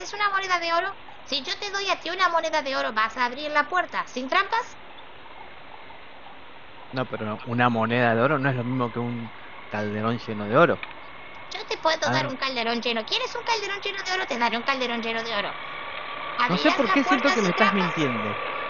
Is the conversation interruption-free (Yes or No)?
No